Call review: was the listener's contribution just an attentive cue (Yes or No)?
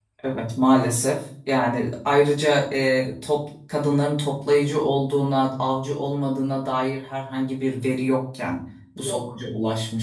Yes